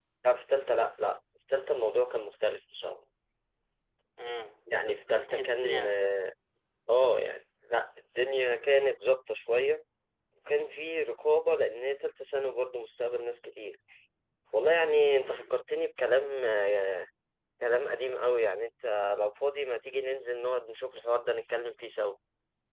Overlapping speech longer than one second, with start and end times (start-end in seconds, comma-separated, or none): 4.7-5.9